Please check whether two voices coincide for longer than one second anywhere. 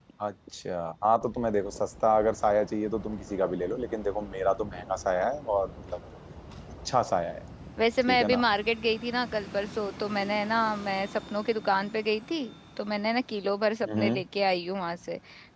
No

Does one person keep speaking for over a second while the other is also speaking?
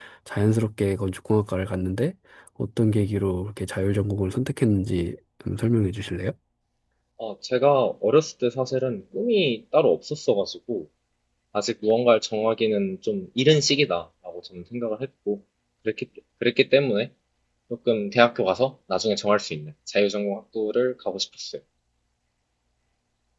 No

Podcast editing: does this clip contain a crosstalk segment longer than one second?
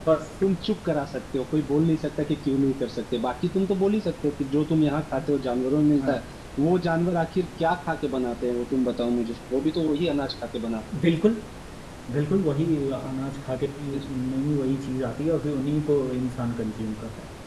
No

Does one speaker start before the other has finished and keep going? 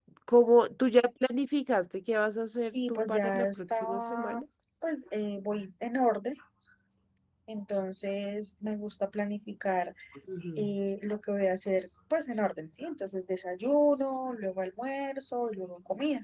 Yes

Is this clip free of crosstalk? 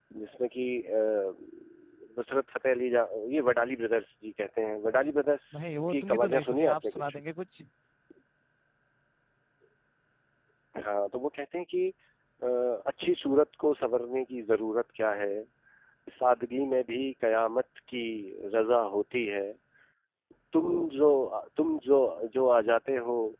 No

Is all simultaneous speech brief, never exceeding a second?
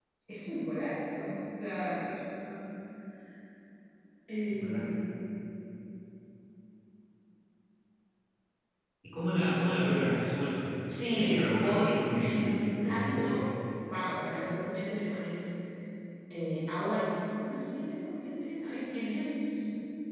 No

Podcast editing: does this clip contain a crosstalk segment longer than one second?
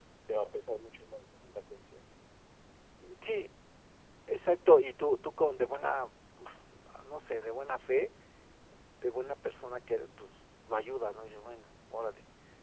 No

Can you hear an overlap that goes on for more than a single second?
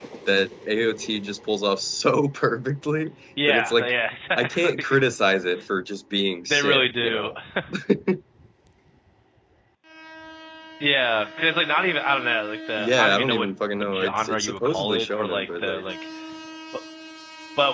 Yes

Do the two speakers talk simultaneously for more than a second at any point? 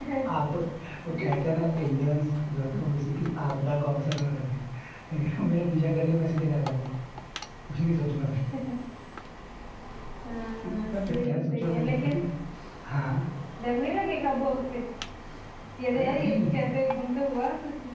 Yes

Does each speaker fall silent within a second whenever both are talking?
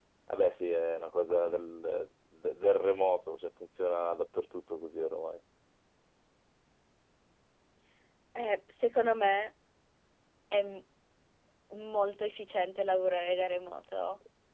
Yes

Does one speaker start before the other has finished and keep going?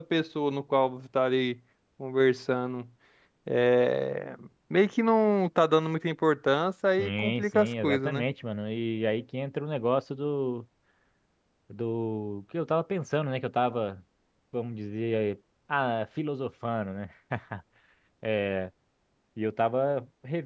Yes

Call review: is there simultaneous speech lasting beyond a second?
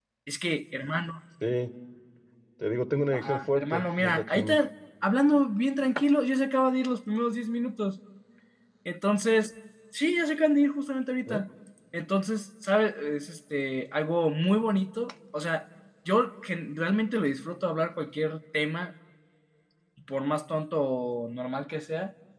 Yes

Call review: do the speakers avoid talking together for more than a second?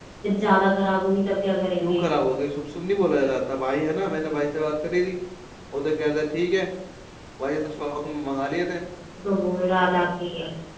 Yes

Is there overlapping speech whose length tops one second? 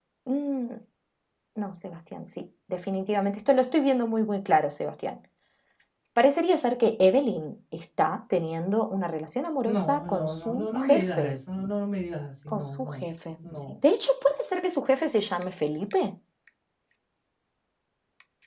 Yes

